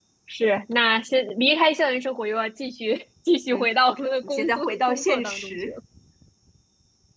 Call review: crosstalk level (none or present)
present